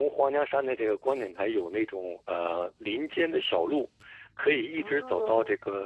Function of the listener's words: listening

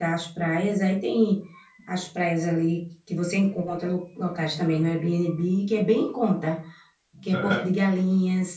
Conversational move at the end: listening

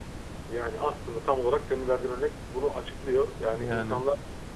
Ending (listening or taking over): listening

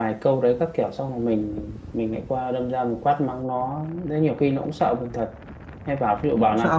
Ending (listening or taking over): listening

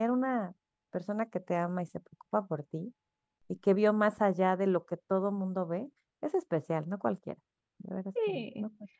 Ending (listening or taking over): taking over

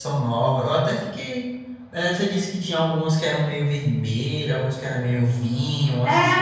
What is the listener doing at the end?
taking over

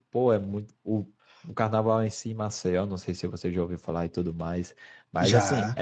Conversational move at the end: listening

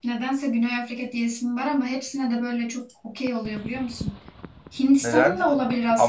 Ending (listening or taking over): taking over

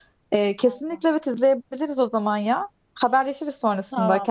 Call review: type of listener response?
taking over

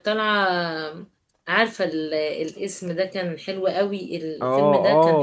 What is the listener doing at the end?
taking over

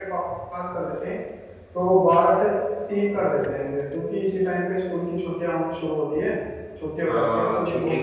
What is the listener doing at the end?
taking over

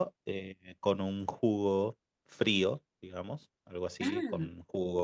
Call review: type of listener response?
listening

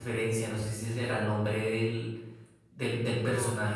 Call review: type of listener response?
listening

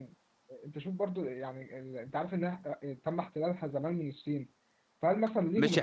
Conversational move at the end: taking over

